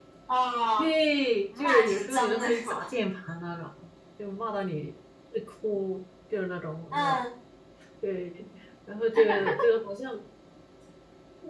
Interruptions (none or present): present